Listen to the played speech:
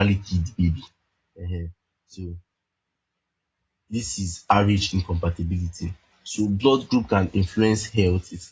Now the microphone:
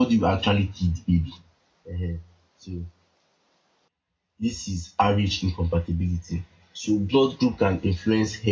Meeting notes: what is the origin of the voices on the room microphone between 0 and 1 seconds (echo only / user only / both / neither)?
echo only